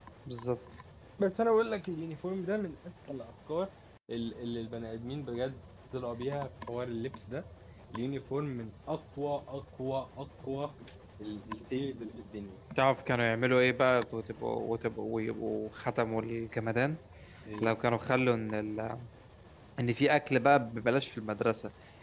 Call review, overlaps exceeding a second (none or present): none